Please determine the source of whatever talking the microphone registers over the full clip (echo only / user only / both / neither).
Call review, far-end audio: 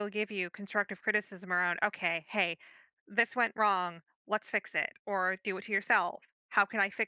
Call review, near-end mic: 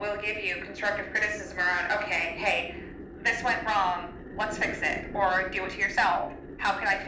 echo only